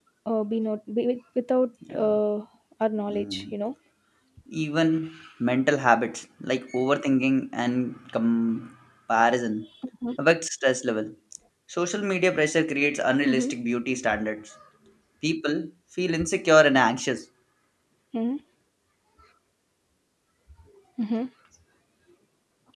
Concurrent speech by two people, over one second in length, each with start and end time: none

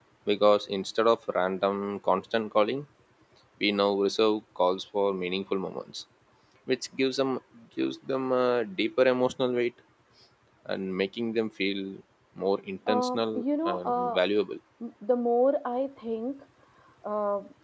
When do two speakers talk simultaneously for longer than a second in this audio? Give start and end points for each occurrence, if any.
12.9-14.2

